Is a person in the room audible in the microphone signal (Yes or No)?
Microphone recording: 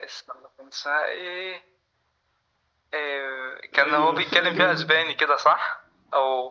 Yes